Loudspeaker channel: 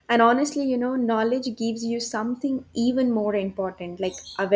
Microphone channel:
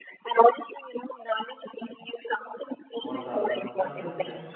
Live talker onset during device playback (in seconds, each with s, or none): 3.0 s